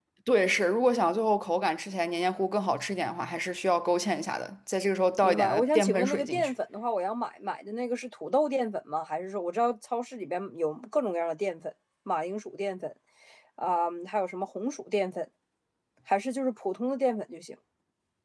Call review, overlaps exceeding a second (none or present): present